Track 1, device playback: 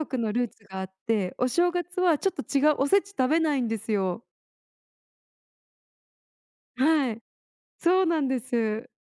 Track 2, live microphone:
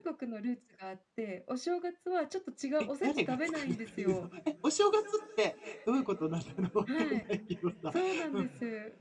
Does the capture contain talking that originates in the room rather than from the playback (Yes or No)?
Yes